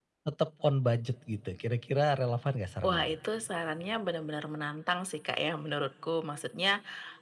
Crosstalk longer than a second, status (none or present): none